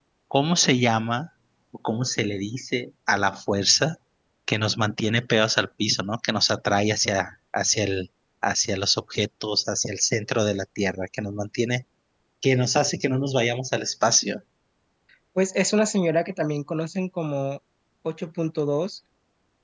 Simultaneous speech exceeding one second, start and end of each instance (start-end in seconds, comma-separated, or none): none